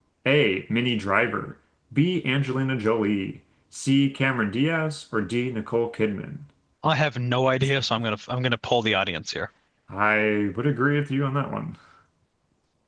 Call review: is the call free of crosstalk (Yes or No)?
Yes